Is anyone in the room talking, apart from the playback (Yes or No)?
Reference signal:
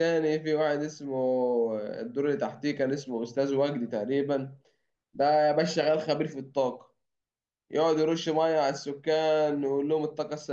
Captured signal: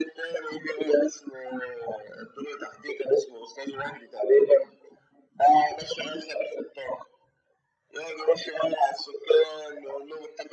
No